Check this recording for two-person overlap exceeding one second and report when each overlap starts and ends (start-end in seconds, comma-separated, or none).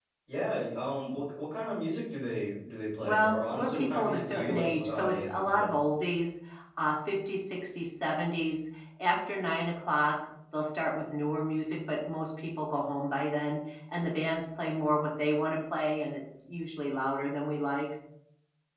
3.0-5.7